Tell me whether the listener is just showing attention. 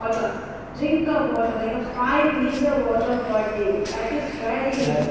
No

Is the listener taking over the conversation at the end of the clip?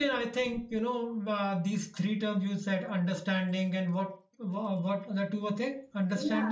Yes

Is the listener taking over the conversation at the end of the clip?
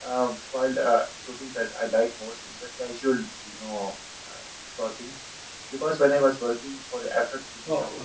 Yes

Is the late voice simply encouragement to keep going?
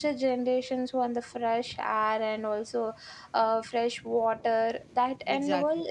Yes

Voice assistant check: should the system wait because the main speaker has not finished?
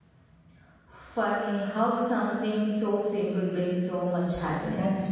No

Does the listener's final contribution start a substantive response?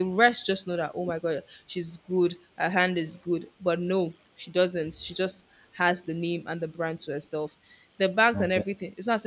No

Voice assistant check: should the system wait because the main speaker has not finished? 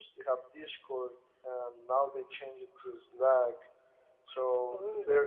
Yes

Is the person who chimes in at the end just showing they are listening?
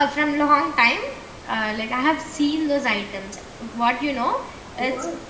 Yes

